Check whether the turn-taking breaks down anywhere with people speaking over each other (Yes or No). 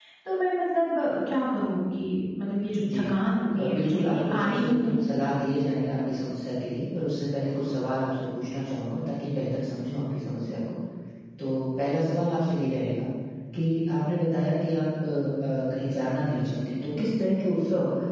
Yes